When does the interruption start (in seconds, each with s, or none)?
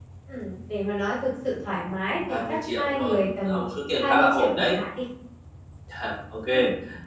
2.3 s